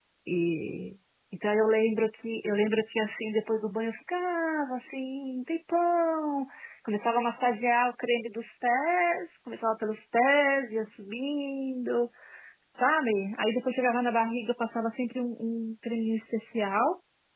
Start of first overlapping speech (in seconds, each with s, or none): none